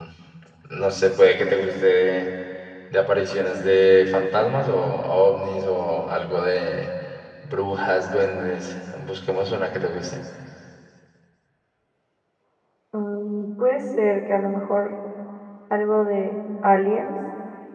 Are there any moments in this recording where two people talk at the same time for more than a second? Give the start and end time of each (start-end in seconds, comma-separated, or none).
none